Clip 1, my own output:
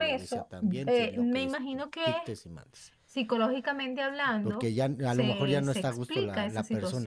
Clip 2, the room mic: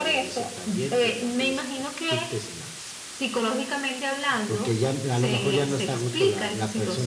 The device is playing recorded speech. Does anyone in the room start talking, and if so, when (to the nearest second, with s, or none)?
none